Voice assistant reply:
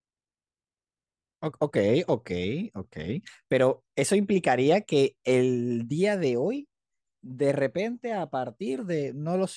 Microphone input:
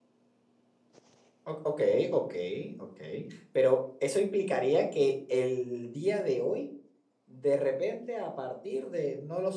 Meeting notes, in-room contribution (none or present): none